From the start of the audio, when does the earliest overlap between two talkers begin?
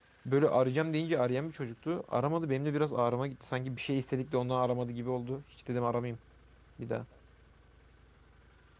none

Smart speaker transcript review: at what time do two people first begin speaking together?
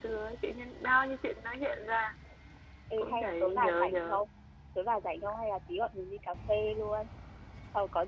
3 s

